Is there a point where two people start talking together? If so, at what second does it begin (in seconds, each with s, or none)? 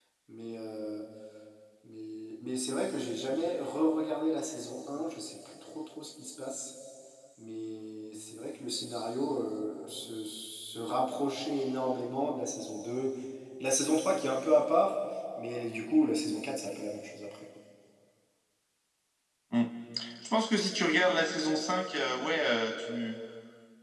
none